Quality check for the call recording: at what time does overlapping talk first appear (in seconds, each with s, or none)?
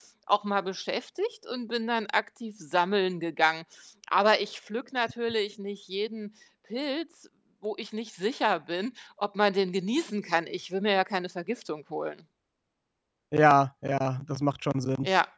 none